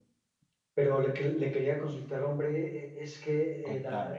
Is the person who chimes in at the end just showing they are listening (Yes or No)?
Yes